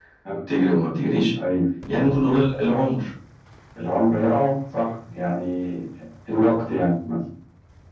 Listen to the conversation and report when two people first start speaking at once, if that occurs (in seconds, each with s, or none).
none